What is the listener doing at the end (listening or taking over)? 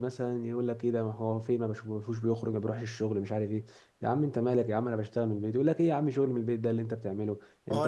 taking over